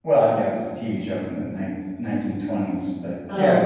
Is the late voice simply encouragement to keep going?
Yes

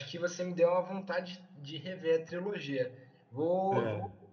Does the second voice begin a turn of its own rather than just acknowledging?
No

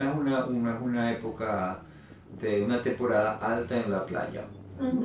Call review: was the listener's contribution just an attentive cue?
No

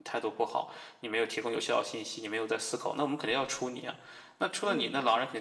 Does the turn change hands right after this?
No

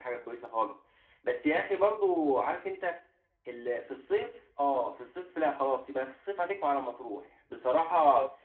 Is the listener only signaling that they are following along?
Yes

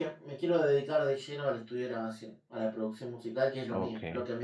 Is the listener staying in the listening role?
No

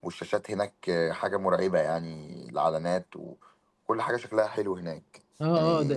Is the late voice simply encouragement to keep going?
No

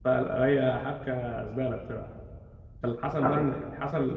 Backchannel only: Yes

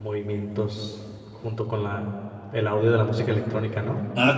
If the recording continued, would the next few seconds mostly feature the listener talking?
Yes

